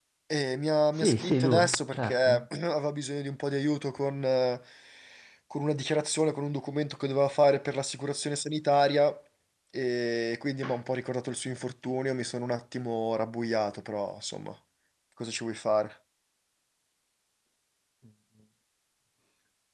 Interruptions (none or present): present